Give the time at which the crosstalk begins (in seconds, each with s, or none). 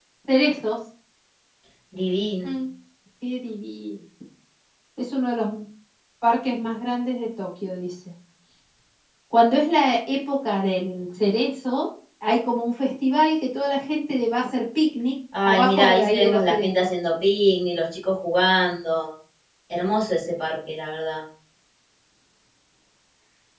15.3 s